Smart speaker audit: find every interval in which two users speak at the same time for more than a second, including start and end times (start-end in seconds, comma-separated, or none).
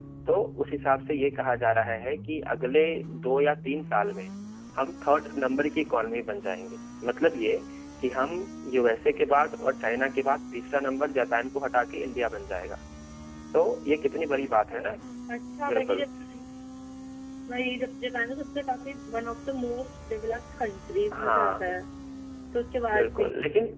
none